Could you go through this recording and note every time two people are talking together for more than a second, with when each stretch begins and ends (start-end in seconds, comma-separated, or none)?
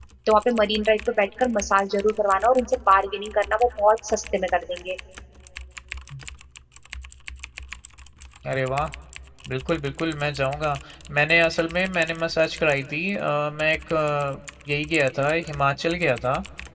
none